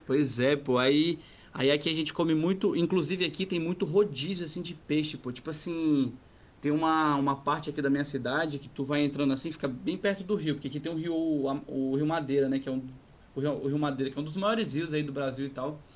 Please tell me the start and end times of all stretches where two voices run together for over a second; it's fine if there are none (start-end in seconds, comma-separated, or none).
none